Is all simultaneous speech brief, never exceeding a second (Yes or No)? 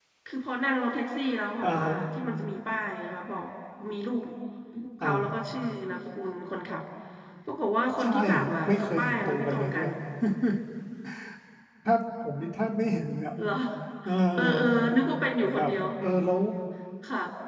No